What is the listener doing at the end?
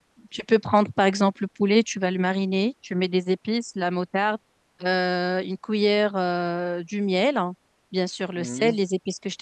listening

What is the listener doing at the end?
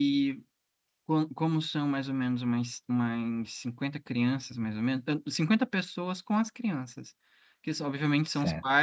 listening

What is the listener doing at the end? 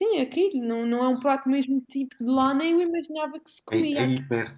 taking over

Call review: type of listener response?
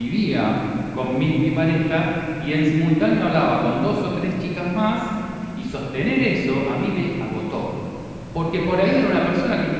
listening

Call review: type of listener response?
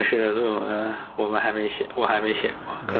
taking over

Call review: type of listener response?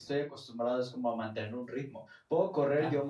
listening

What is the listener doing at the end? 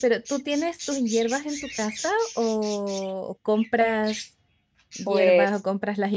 listening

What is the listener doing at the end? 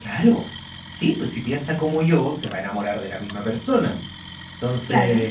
listening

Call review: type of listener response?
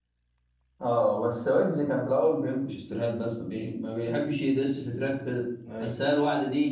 listening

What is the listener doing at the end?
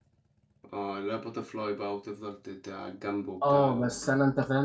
taking over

